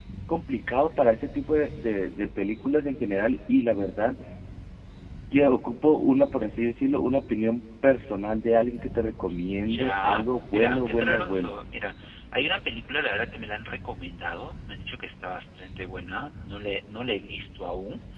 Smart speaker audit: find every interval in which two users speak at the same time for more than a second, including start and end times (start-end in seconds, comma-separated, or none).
9.6-11.6